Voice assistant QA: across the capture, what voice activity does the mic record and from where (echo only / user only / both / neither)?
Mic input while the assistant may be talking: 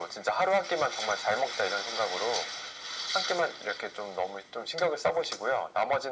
echo only